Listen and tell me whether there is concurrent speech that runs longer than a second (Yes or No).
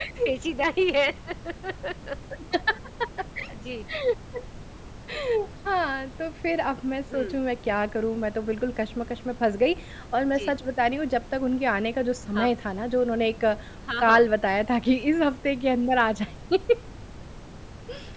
No